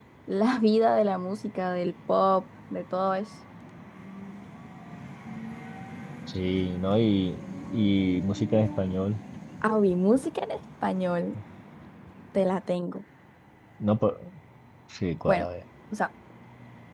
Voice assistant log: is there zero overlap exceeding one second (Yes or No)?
Yes